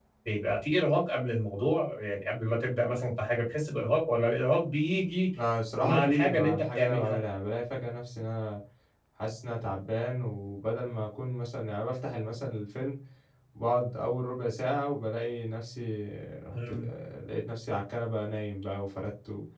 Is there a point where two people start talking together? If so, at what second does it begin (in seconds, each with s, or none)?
5.8 s